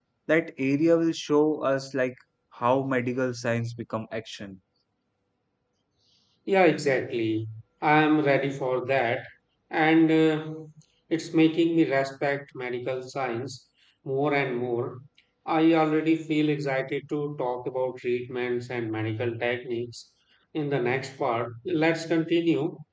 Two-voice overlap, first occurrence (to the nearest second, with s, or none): none